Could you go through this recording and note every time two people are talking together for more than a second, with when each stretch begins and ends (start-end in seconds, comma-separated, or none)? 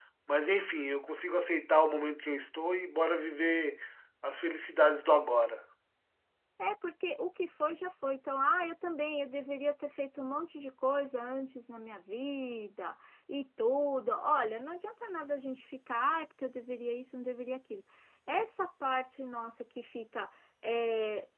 none